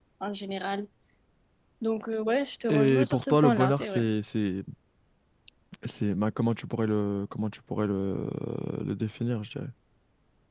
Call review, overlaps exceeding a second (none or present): present